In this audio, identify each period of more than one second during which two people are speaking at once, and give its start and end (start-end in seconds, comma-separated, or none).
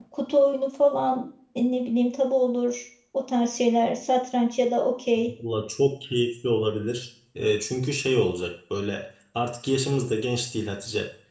none